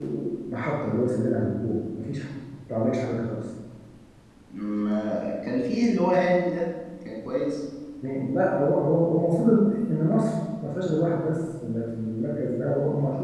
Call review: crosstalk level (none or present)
none